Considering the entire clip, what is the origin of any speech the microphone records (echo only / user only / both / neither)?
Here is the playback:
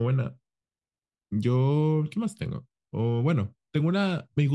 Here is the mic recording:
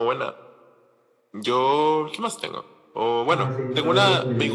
both